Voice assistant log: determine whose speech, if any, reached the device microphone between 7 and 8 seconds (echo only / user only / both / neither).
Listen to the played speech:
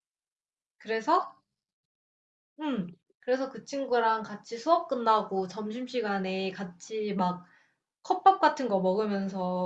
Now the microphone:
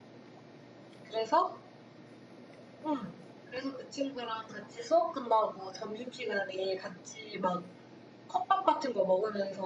echo only